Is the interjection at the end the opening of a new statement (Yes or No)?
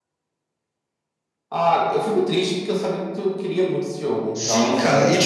Yes